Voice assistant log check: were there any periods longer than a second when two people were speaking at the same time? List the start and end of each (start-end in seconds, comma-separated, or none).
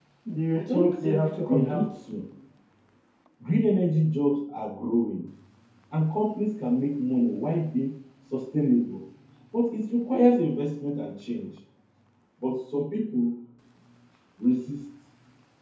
0.5-1.8